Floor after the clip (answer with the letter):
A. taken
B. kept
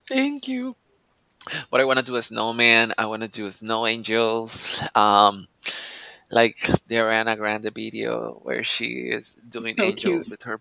B